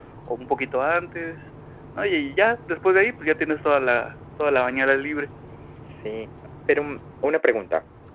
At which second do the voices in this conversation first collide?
none

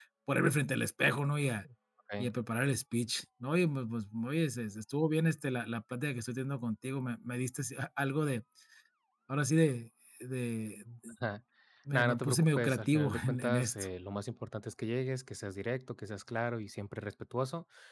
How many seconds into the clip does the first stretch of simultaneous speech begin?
11.9 s

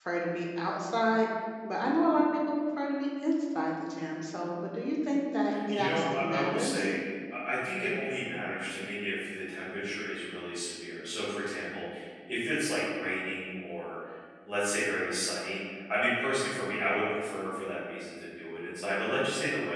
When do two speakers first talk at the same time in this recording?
5.5 s

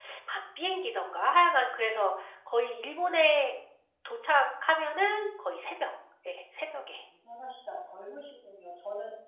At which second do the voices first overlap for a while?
none

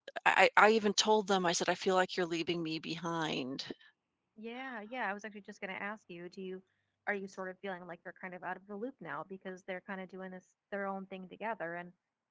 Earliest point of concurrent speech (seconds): none

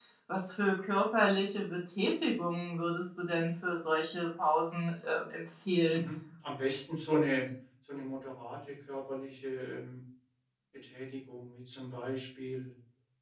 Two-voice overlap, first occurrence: none

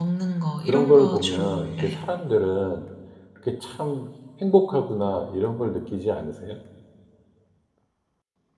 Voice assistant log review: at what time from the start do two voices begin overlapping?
0.7 s

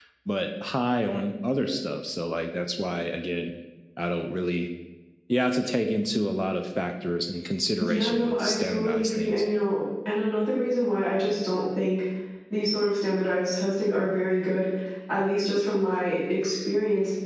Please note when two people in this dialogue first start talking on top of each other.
7.8 s

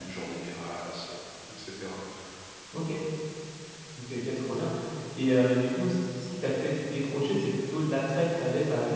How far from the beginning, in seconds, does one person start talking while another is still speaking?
none

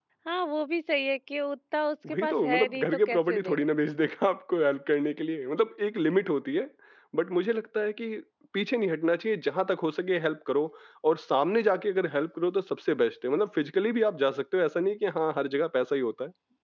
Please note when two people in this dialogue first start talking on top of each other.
2.0 s

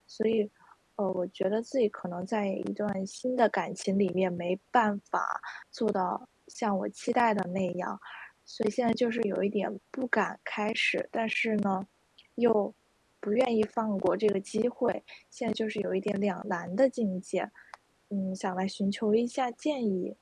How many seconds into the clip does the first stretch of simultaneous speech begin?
none

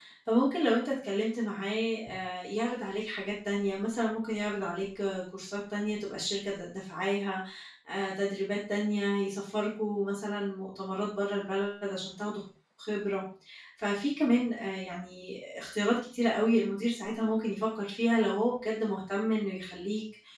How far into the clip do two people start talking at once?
none

